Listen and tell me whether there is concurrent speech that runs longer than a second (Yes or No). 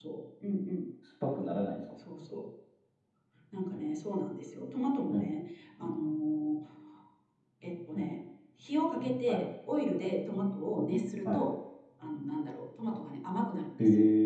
No